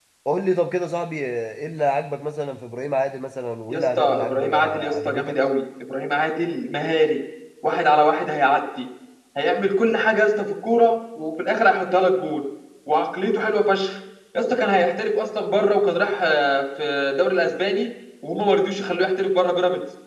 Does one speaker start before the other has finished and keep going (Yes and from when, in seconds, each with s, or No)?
Yes, from 3.7 s